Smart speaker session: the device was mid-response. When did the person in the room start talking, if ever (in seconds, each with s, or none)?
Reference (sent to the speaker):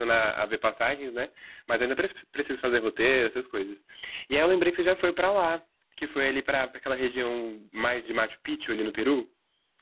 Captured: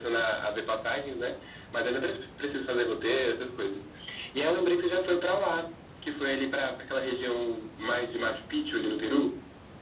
none